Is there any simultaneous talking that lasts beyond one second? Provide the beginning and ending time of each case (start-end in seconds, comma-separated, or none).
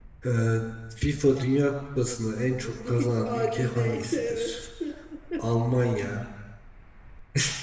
2.6-4.7